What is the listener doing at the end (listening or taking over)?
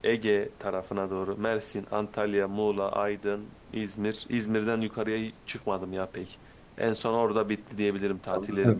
taking over